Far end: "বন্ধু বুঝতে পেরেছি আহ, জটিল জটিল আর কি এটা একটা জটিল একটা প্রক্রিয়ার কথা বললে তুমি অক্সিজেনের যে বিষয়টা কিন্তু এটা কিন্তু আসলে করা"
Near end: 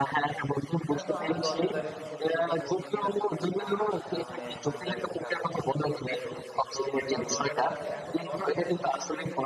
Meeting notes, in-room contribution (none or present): present